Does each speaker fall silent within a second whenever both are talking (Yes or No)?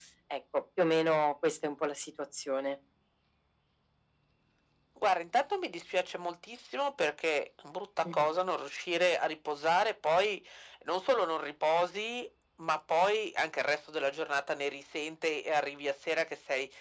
Yes